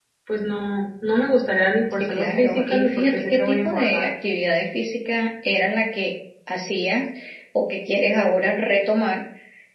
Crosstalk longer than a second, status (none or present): present